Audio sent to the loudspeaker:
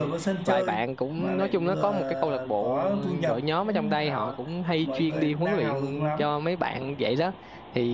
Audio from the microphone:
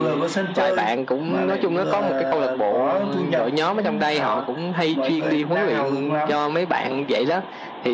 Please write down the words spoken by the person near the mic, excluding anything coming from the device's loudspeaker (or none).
none